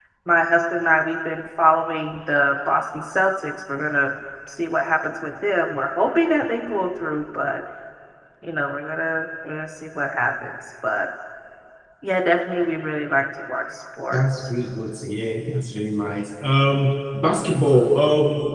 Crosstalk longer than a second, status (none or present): none